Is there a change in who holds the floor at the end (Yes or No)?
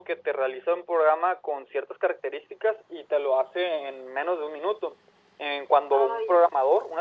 No